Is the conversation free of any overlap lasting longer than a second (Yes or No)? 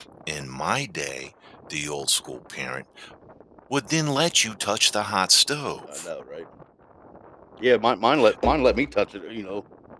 Yes